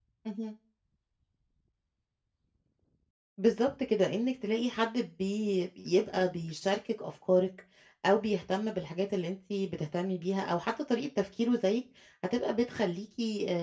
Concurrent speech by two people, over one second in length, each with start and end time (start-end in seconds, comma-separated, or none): none